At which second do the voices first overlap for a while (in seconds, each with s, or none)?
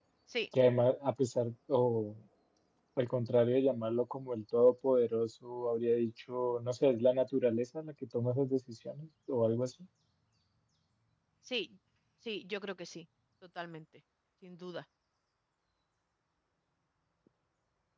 none